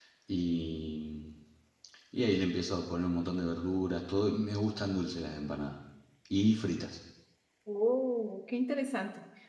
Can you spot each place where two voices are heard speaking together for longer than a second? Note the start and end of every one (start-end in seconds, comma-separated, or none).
none